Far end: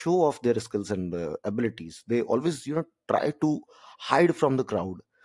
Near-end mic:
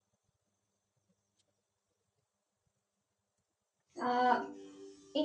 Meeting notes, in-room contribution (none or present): present